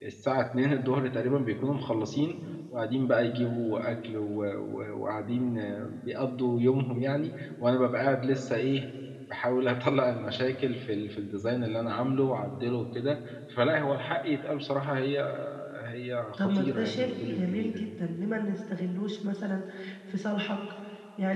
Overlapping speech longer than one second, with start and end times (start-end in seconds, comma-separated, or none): 16.4-17.9